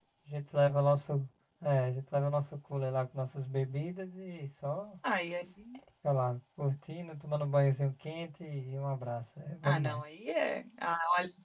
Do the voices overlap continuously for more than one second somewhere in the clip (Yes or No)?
No